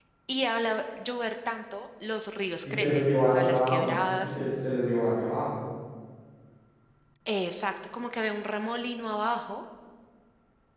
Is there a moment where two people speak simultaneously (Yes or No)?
Yes